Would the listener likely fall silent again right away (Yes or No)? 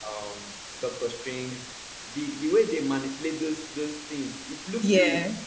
Yes